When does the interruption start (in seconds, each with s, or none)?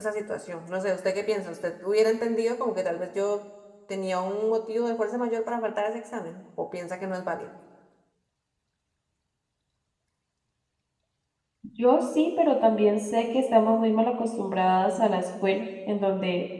none